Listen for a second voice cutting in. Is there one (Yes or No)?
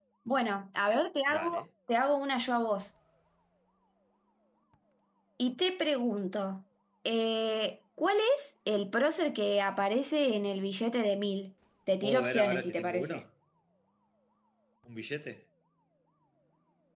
Yes